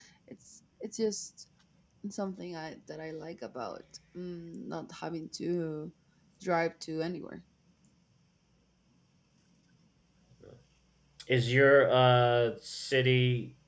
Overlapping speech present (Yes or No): No